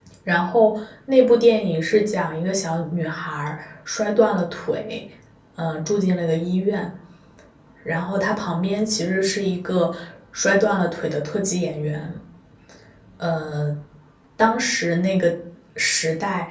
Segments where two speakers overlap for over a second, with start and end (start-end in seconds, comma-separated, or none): none